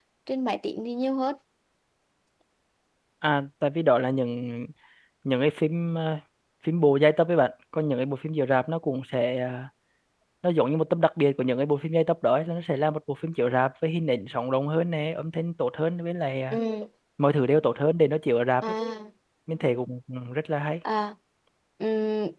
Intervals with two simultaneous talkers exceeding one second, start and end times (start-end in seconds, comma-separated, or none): none